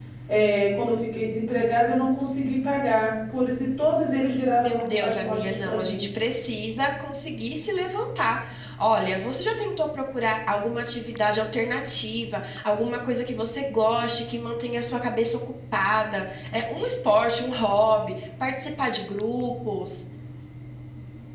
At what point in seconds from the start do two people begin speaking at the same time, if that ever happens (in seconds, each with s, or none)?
4.6 s